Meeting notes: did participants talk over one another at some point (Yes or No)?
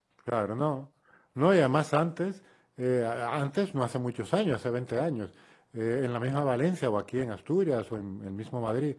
No